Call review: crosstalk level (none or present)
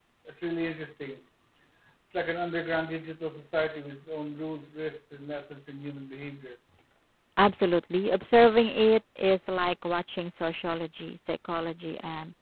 none